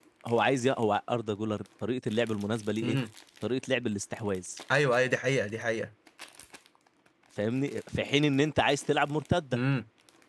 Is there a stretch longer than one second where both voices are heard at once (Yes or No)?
No